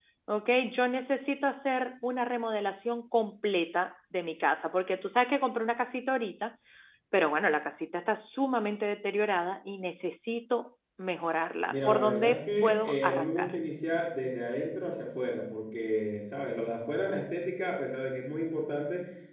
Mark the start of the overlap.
11.7 s

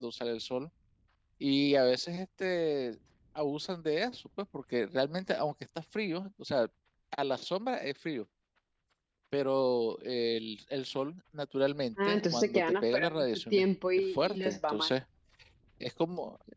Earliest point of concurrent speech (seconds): 12.0 s

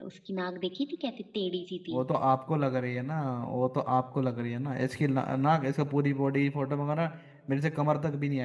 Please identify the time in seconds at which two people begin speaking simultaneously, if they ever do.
none

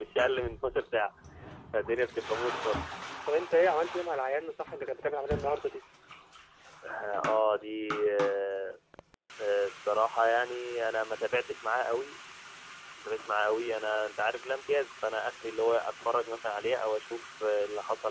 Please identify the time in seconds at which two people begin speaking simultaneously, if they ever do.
none

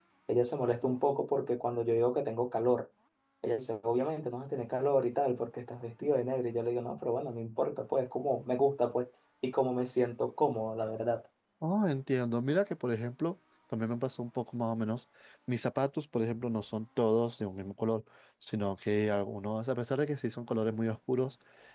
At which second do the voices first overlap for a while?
none

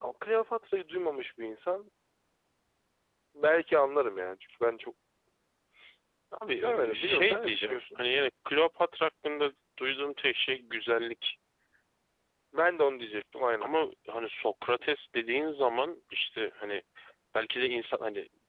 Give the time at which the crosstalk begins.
6.6 s

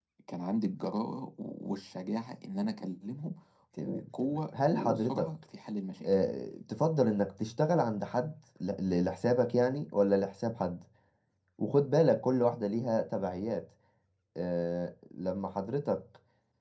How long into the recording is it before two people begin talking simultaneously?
3.8 s

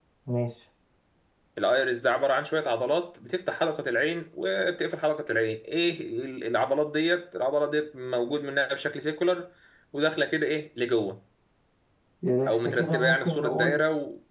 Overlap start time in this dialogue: 12.5 s

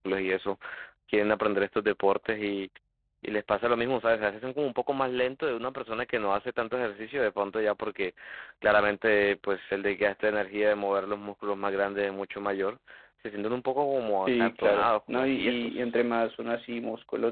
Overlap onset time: 14.3 s

